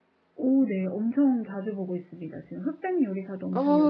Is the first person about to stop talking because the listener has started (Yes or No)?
Yes